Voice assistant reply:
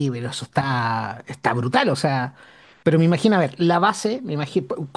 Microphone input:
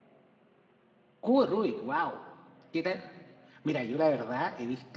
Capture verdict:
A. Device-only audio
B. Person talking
B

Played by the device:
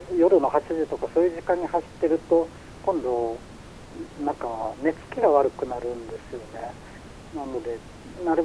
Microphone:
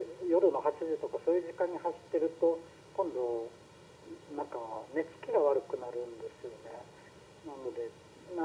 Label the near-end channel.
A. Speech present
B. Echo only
B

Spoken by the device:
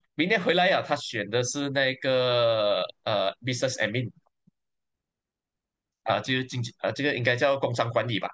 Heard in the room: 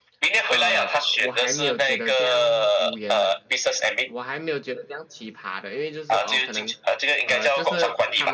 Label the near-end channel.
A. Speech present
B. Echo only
A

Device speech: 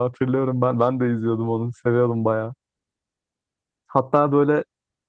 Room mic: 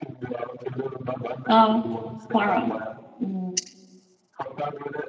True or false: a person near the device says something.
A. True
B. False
A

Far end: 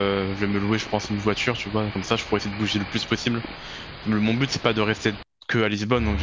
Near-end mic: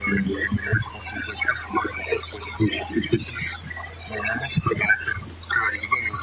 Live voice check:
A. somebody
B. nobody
B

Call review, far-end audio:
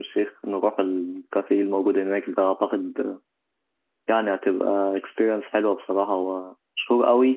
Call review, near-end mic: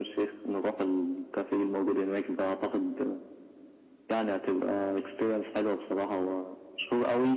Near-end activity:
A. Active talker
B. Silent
B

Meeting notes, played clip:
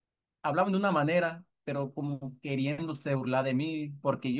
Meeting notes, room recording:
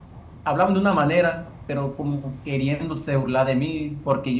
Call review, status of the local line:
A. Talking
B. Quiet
B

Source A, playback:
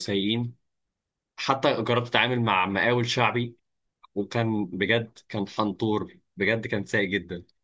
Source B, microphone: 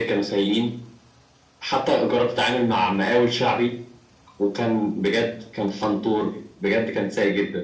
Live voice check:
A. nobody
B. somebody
A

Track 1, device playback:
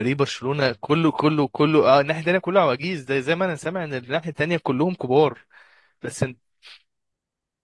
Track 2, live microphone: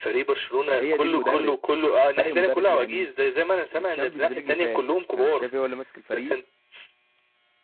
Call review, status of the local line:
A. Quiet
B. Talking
B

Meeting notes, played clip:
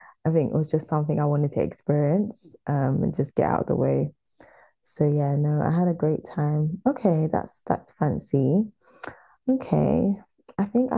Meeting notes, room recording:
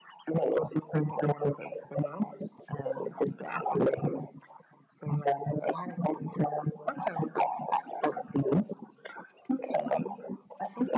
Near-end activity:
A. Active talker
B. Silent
B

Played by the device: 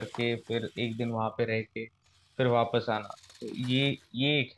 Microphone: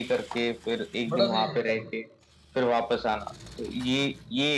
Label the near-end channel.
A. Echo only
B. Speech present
B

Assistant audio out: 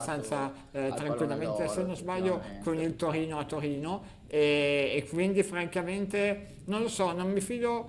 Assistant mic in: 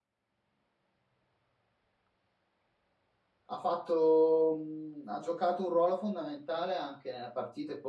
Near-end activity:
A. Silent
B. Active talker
B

